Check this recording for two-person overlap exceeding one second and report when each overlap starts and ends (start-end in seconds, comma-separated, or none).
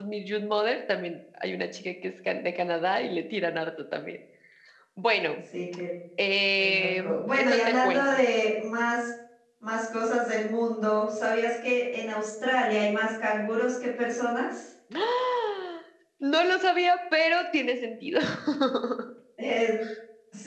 6.6-8.2